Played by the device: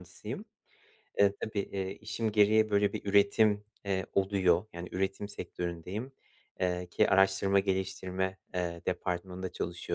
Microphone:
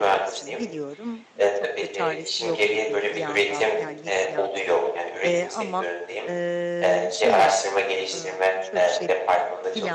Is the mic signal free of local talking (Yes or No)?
No